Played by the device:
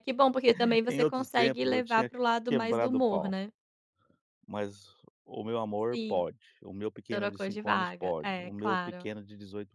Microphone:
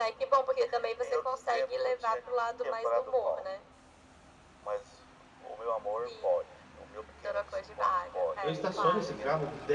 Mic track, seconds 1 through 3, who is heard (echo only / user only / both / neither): echo only